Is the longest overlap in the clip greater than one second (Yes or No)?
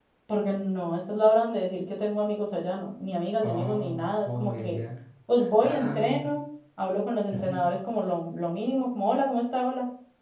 Yes